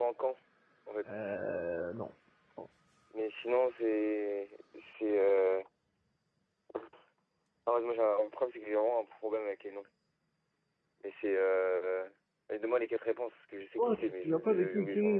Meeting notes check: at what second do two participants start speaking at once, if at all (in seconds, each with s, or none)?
13.8 s